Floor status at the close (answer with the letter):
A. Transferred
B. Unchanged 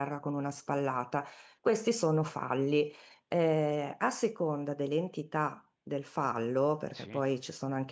B